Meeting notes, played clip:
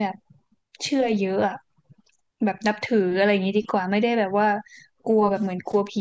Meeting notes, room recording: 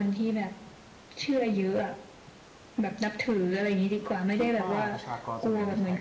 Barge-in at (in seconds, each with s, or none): 4.4 s